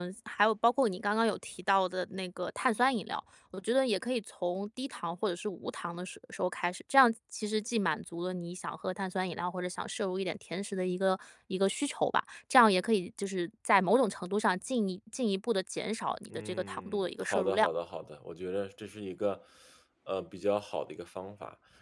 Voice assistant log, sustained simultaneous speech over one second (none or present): present